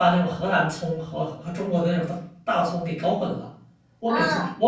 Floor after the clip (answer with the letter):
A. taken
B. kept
B